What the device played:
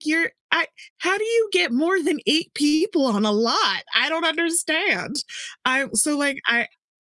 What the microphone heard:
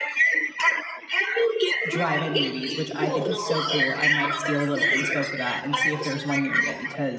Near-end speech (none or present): present